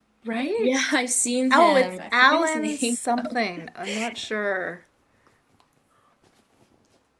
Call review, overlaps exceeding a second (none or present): present